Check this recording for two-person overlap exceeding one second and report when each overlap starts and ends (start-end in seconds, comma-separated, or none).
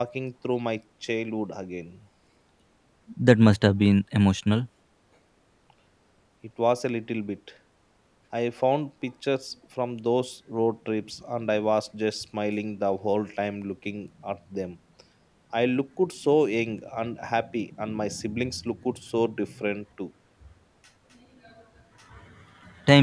none